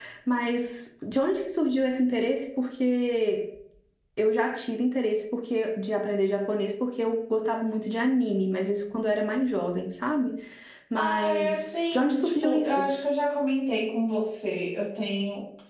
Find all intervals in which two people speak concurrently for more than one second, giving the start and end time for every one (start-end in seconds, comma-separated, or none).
10.9-12.9